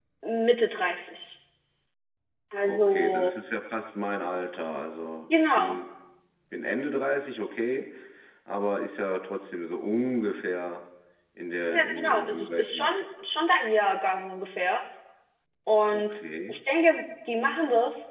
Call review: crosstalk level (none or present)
present